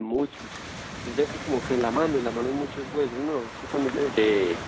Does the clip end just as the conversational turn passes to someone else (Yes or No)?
Yes